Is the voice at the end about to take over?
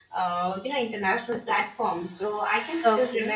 No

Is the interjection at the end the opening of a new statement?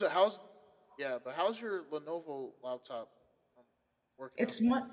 Yes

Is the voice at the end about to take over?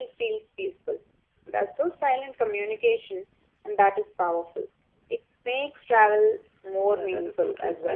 Yes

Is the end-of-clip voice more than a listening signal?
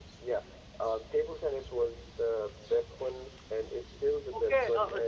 Yes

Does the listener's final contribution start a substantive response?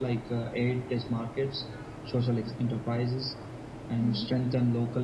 No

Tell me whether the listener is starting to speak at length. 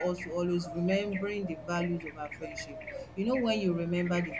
No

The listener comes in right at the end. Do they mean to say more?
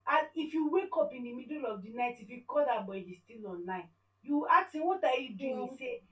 No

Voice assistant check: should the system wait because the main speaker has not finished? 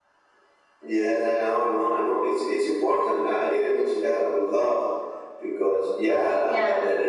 Yes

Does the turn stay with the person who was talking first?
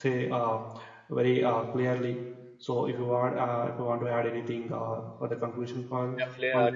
No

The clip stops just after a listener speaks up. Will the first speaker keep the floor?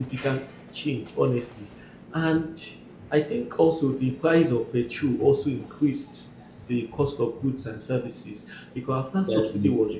Yes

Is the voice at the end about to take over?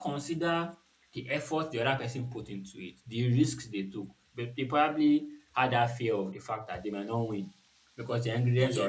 No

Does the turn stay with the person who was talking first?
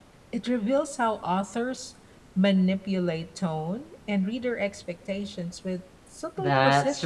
No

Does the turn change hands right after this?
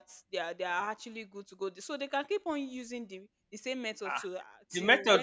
Yes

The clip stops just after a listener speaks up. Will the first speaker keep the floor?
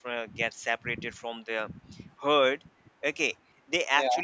Yes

